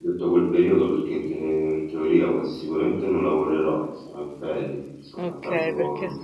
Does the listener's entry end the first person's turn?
Yes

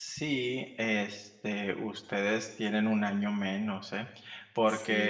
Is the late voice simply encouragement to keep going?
Yes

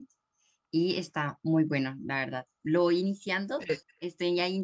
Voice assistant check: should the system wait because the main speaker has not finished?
Yes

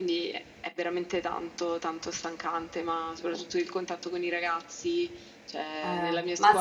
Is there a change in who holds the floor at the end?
Yes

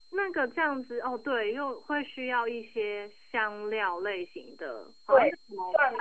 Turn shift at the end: Yes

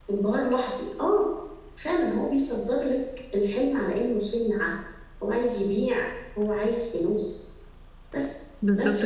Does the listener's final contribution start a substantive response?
No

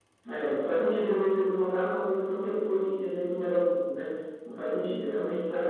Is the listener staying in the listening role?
Yes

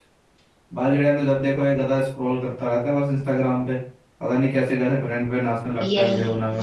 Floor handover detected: Yes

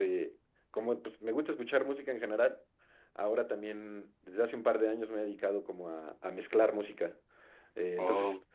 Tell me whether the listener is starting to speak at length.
No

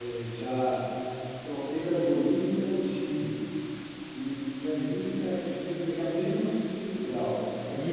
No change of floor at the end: No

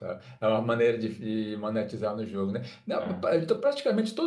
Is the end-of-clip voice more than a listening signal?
No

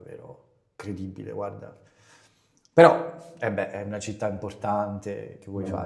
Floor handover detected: Yes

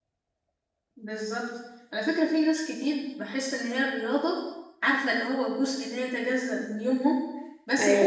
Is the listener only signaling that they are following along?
Yes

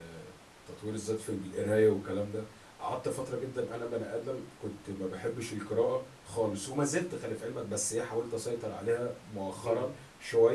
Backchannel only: Yes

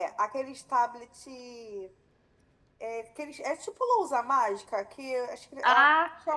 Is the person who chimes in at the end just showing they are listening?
Yes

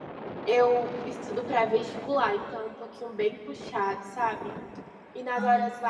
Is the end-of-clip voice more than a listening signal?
No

